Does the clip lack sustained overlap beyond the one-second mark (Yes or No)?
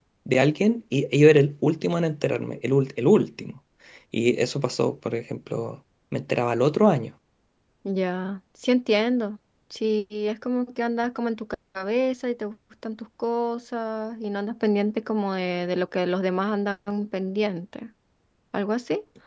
Yes